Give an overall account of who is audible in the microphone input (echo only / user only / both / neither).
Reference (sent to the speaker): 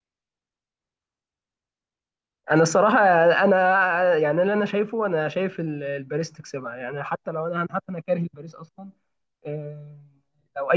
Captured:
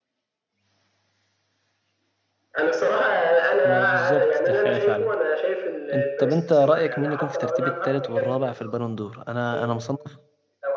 both